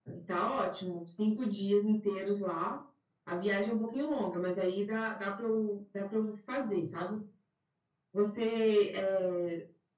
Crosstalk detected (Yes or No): No